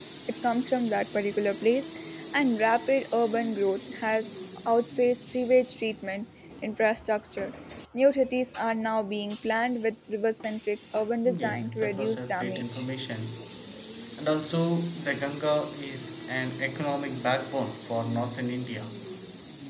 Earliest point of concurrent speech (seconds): 11.2 s

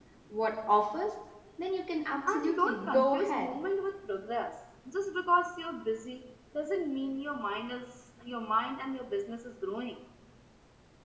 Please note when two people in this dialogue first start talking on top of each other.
2.3 s

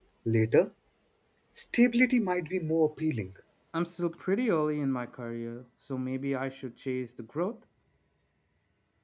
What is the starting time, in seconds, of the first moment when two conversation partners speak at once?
none

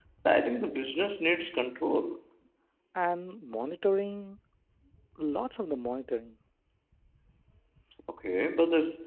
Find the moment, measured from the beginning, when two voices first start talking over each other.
none

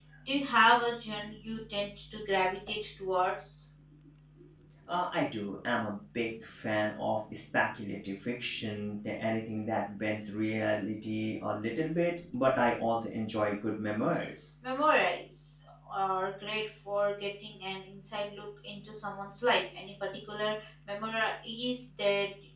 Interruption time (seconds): none

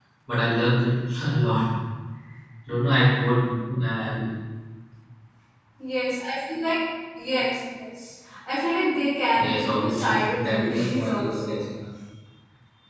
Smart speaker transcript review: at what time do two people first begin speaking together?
9.4 s

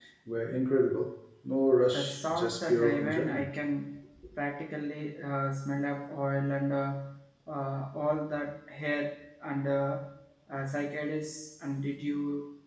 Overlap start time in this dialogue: 1.9 s

